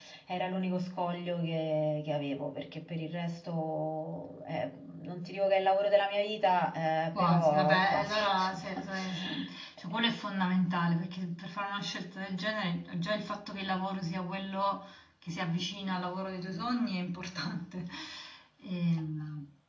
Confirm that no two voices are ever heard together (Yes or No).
No